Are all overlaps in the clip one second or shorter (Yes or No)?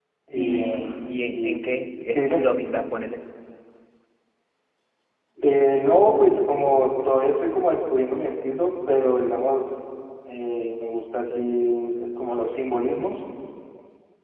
No